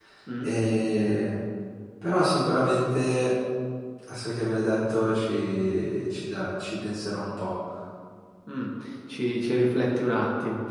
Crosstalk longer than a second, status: none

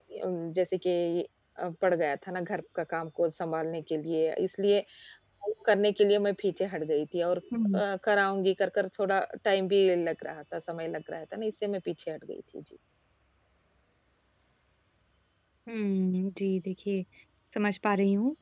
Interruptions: none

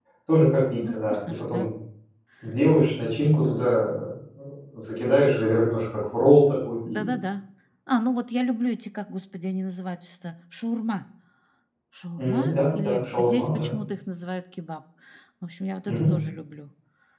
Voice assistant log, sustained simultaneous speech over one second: present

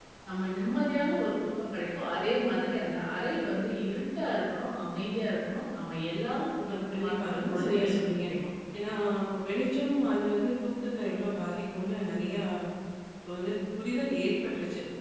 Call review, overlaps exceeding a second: present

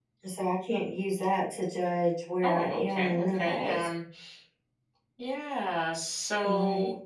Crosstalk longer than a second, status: present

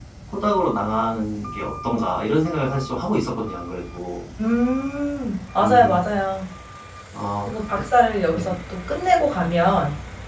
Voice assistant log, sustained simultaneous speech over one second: none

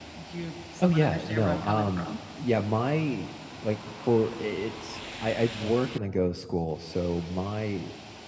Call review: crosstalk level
present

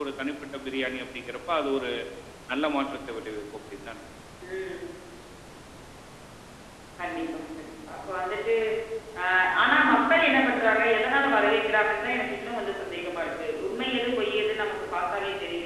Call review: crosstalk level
none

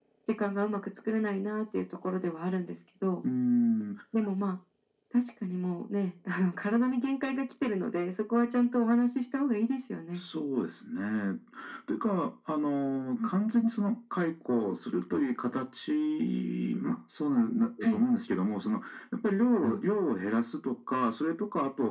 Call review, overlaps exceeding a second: none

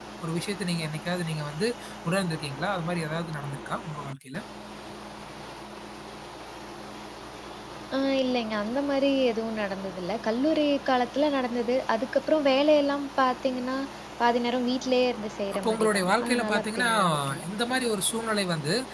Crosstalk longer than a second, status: present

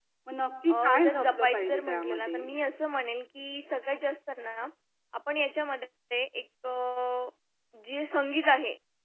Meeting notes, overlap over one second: present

